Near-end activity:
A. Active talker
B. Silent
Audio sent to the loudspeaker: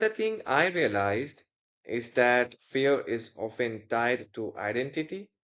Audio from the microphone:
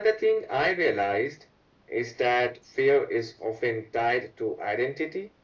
B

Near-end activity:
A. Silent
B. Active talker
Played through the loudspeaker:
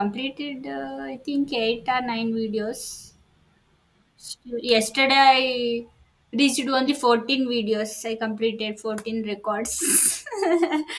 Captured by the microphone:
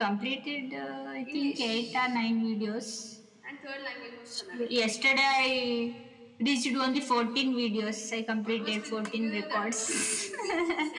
B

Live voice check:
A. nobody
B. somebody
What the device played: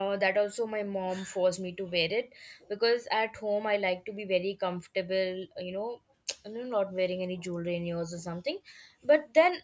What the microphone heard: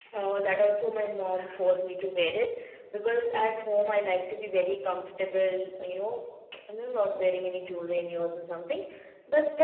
A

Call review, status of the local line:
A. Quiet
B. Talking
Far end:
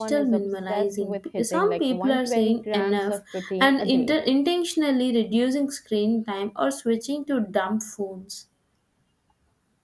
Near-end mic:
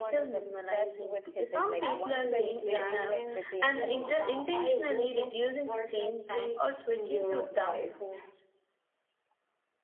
B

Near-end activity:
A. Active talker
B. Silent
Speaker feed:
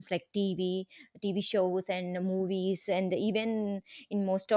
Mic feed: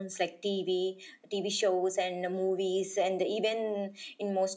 B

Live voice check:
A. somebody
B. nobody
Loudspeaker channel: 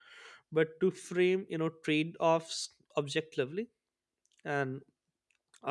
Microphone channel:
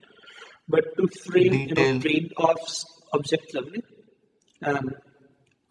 A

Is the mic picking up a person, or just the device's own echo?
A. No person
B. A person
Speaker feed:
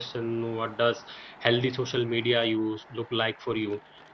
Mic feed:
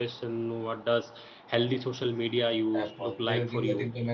B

